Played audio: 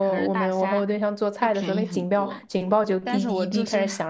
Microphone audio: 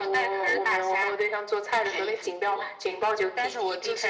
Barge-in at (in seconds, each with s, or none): none